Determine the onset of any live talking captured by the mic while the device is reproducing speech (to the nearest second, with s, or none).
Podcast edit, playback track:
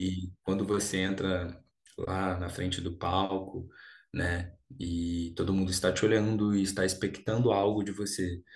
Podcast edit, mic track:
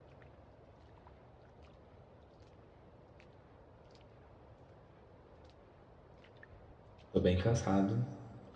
7 s